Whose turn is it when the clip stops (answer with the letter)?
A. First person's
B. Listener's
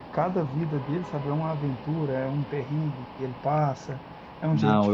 A